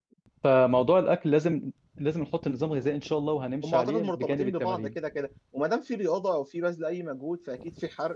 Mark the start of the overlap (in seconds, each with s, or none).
3.6 s